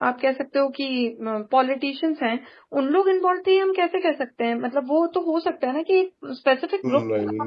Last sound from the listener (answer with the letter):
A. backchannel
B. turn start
B